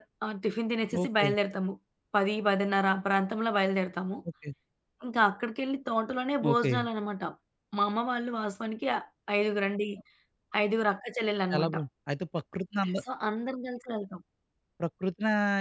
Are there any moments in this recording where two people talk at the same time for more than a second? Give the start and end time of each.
none

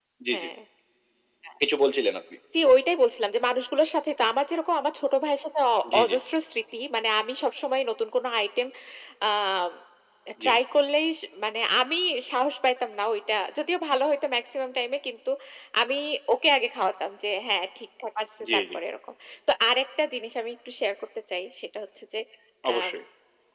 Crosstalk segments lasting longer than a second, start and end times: none

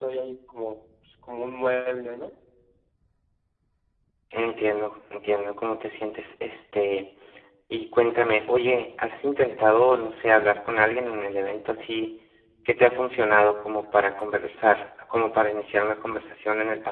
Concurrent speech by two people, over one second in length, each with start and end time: none

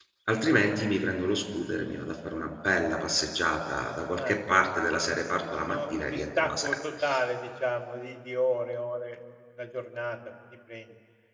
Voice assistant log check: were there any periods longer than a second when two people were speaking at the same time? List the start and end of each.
5.3-6.8

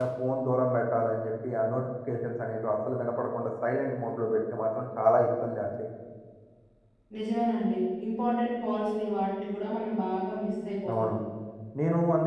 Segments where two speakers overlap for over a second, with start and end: none

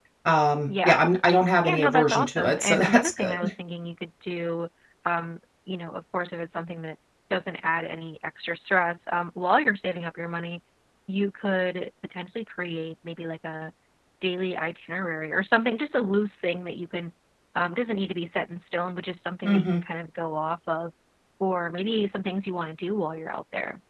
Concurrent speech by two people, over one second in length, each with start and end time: 1.6-3.4

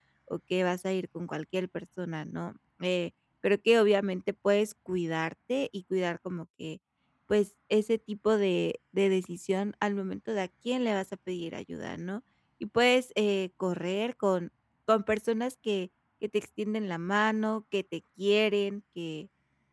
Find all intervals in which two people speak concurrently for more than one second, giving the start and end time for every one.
none

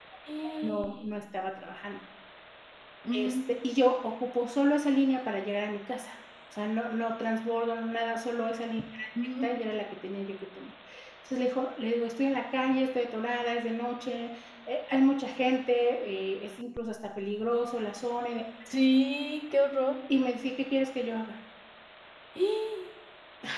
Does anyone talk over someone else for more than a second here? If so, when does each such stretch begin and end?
none

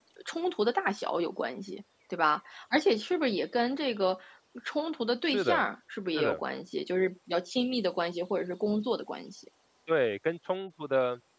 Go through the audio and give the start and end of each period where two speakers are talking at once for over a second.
none

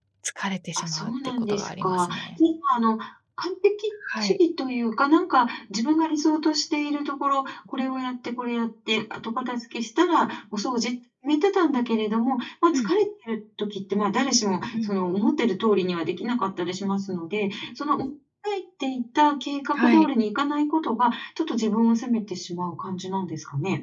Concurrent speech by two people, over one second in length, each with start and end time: 0.8-2.4

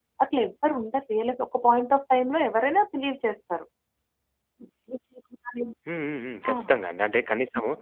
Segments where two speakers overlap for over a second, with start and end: none

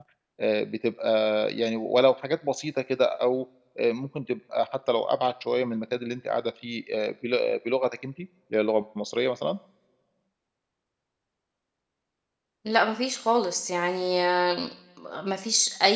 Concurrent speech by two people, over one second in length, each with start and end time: none

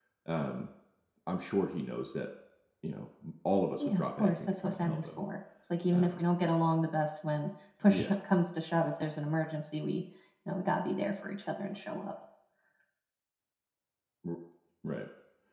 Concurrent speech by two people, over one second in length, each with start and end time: 3.8-5.2

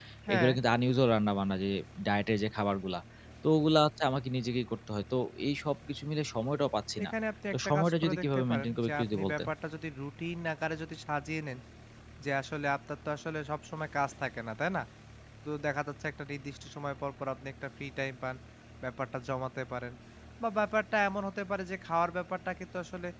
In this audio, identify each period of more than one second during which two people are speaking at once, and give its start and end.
7.5-9.5

